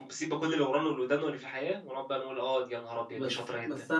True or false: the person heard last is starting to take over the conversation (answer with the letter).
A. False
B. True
B